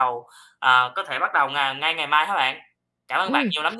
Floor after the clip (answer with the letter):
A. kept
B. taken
B